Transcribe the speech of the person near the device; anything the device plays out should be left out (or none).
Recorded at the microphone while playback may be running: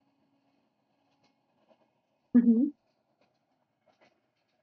Mhm.